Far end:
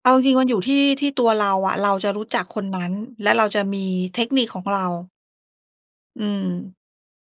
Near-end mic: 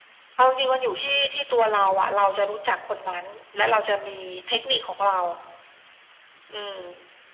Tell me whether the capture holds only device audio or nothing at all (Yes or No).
Yes